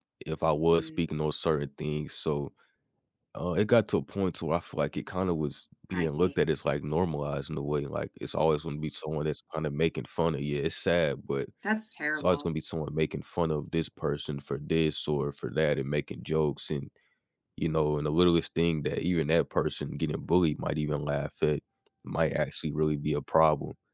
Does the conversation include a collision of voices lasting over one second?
No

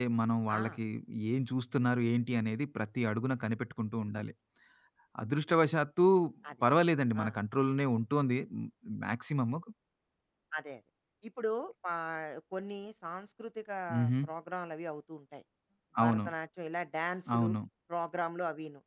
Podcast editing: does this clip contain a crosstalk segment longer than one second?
No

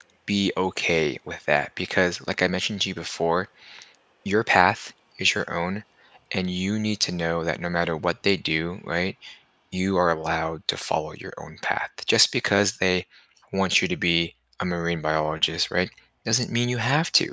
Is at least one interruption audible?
No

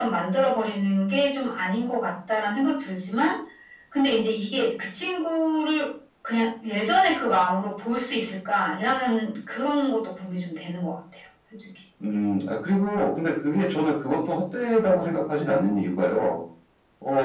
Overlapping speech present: No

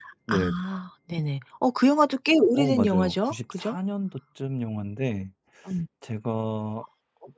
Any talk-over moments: Yes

